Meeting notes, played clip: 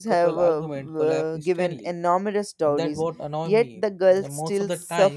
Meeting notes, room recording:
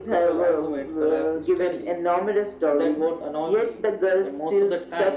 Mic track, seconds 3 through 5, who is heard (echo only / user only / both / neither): echo only